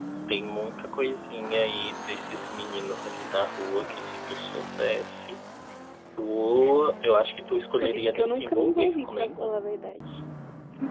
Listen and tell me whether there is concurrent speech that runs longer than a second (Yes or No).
Yes